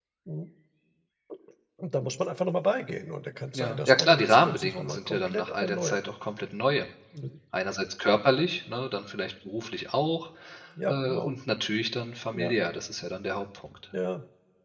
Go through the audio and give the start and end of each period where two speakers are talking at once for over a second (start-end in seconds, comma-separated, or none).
3.5-6.0